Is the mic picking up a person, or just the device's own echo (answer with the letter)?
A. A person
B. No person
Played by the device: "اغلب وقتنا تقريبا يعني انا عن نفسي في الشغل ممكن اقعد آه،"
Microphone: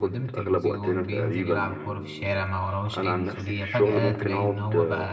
A